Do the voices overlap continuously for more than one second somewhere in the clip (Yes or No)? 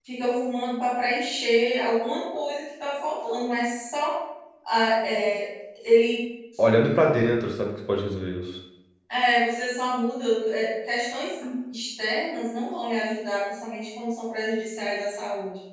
No